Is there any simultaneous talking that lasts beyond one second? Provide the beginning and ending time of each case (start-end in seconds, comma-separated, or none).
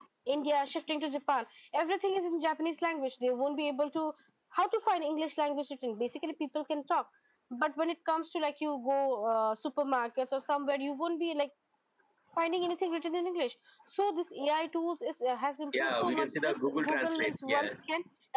15.8-17.7